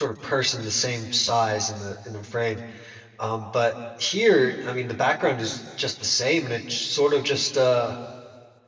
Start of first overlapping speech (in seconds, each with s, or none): none